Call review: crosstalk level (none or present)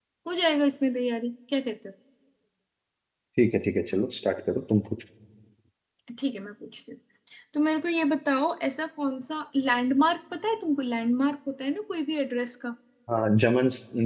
none